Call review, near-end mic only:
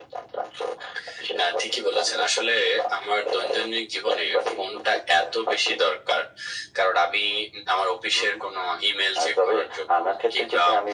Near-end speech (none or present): none